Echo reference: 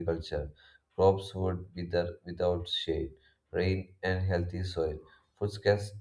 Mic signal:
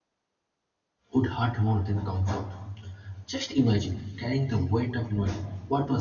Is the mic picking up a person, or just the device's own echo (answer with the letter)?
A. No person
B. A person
B